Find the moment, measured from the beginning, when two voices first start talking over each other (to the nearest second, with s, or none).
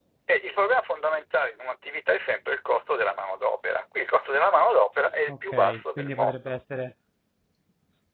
5 s